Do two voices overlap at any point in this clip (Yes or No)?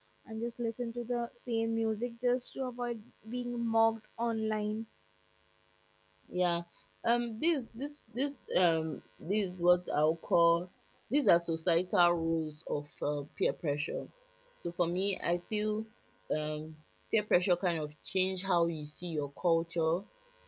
No